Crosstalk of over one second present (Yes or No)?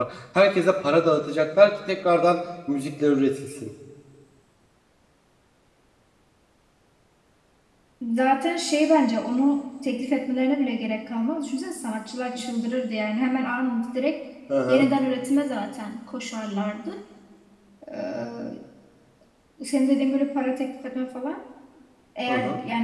No